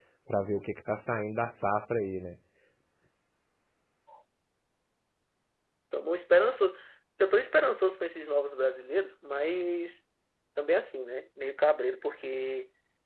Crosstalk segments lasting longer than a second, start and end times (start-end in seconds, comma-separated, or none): none